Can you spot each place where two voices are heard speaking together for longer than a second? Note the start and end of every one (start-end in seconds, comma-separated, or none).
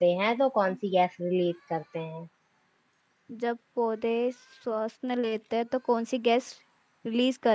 none